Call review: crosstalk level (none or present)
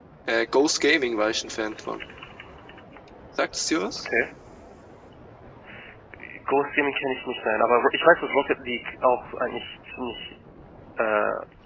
none